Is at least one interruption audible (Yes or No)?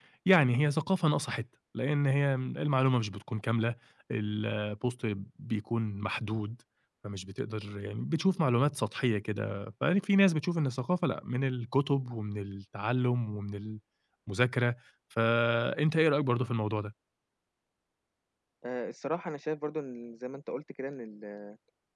No